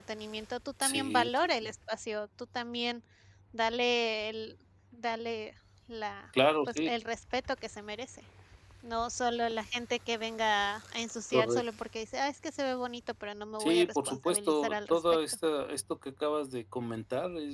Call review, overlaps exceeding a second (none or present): present